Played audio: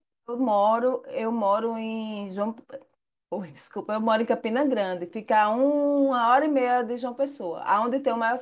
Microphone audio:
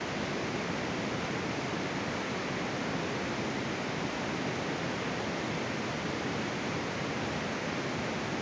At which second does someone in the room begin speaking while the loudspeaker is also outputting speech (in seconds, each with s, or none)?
none